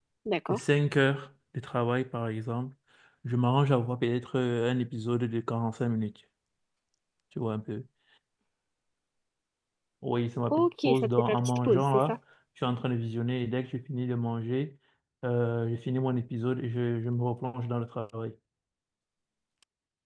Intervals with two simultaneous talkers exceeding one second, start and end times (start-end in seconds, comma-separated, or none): 10.5-12.2